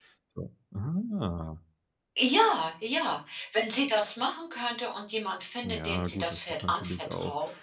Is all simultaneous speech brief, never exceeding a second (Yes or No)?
No